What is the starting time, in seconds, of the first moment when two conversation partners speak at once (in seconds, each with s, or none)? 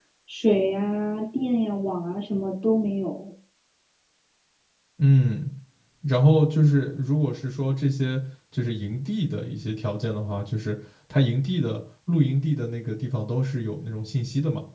none